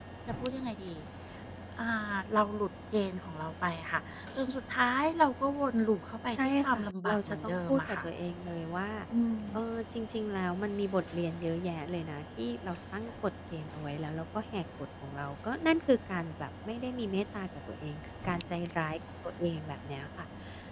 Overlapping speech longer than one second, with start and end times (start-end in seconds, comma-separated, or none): 6.3-8.0